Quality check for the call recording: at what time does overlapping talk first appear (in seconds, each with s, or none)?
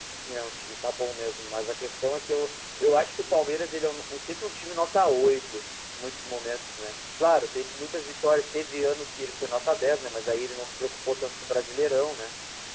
none